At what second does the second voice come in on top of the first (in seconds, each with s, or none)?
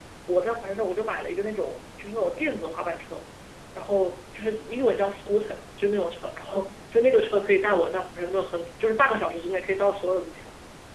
none